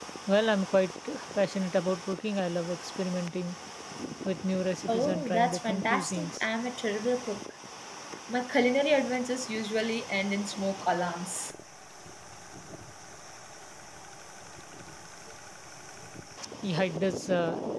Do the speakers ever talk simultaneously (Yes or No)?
Yes